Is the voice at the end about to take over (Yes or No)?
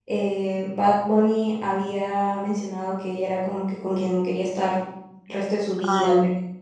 No